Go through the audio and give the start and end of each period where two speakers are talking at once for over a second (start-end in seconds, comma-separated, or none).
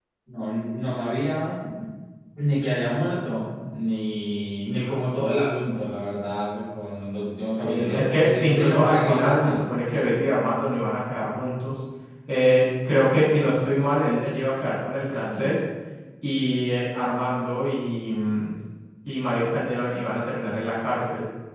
7.6-9.6